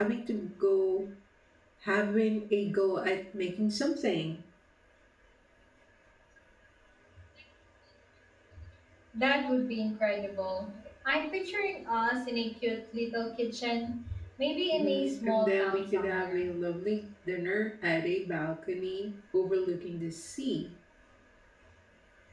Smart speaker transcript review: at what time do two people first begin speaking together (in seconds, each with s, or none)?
14.7 s